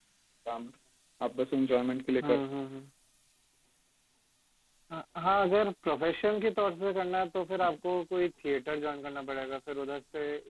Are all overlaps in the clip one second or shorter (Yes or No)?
Yes